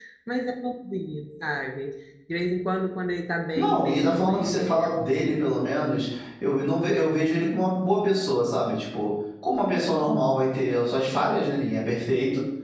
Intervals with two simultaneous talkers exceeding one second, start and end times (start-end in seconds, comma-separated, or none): 3.5-5.5